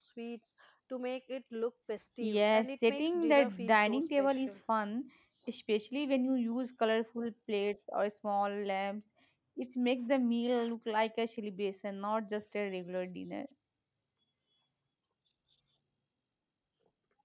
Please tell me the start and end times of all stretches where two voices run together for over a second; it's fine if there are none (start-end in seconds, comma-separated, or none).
2.2-4.6